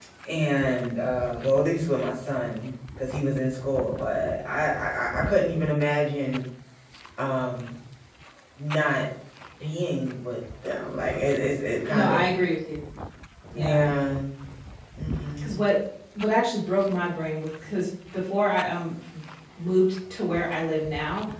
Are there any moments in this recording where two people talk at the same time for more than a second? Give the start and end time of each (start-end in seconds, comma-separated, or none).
none